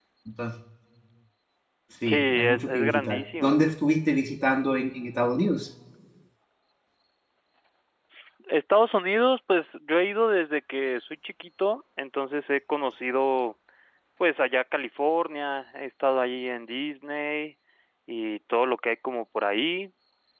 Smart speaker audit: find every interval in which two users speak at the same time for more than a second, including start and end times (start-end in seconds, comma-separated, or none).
2.1-3.6